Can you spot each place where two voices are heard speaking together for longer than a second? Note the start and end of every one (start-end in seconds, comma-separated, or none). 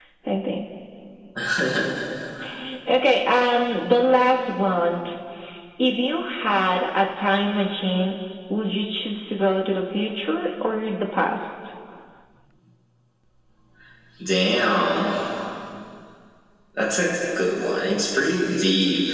none